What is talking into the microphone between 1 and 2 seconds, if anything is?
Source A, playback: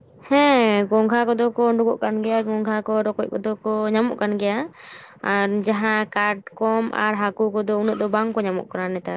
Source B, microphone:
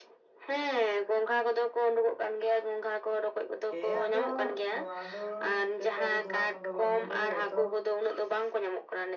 echo only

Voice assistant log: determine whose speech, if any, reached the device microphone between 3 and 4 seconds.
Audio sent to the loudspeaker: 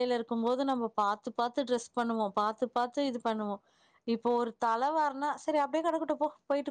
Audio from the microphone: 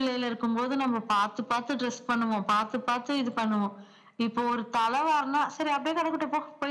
echo only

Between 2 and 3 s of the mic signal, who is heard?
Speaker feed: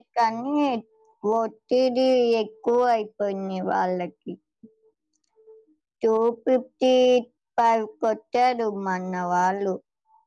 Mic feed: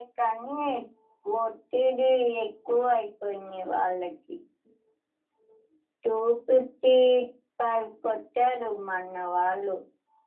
echo only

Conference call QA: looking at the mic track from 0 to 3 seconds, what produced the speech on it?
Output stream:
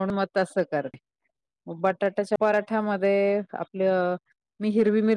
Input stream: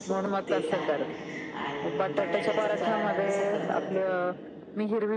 both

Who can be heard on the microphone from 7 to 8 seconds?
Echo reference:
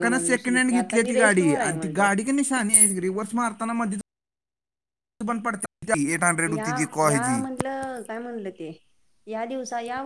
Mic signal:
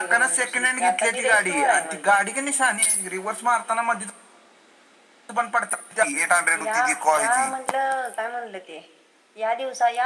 echo only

